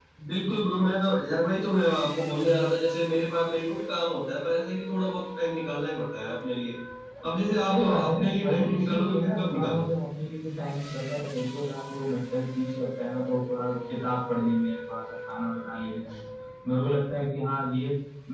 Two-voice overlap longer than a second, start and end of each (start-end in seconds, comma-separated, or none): 7.7-9.9